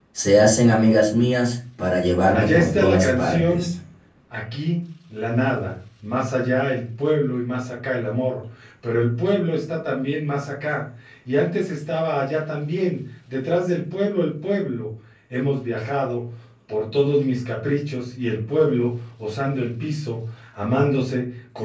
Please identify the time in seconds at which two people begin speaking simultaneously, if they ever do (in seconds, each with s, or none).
2.3 s